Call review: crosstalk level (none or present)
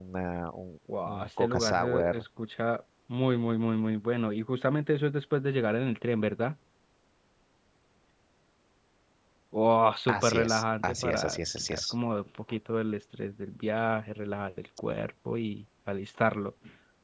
present